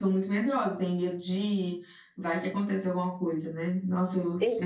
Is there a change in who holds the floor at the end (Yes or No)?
No